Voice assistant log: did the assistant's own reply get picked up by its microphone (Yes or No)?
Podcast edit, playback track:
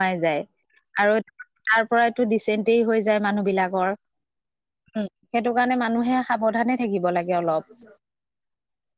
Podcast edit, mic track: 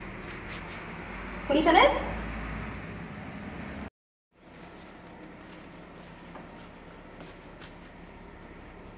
No